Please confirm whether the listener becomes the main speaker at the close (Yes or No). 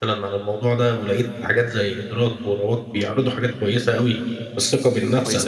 No